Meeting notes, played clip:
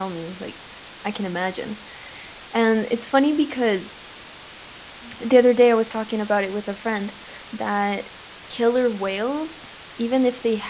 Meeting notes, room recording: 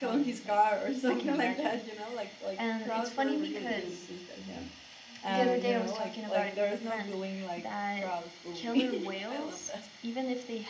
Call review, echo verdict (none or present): present